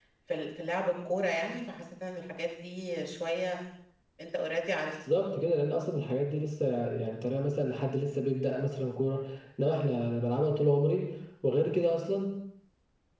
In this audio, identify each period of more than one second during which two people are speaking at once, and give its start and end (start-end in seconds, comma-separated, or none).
none